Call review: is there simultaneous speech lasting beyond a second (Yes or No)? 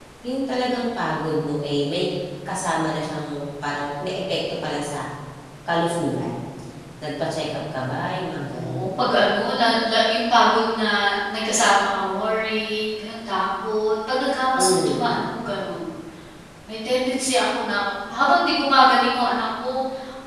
No